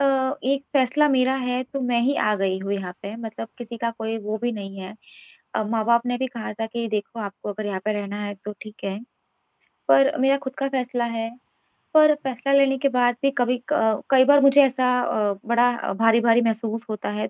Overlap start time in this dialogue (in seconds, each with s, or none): none